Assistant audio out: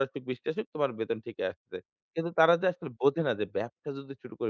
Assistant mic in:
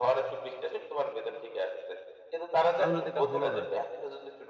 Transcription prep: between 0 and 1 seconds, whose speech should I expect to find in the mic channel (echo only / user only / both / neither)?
echo only